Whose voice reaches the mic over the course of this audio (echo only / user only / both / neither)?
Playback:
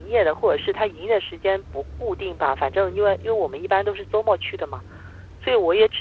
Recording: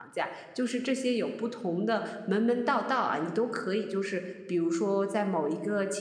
user only